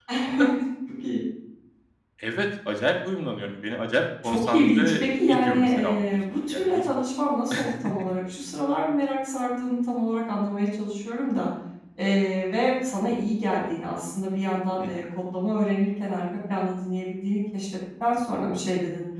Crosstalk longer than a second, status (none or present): present